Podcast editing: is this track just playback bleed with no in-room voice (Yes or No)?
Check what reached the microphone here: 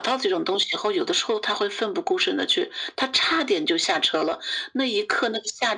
Yes